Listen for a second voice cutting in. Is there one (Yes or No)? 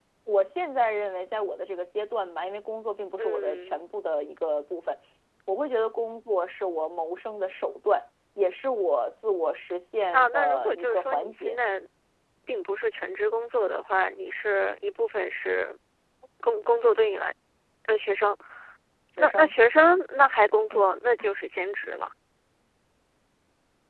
Yes